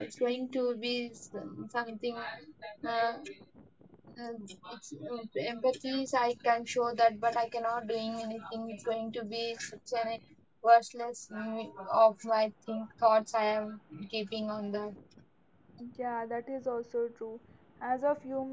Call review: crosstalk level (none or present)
none